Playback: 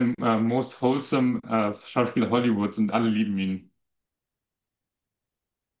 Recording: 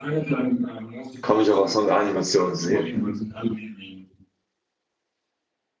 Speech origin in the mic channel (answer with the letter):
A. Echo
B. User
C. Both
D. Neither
C